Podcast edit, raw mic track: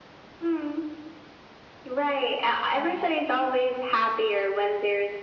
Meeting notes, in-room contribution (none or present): present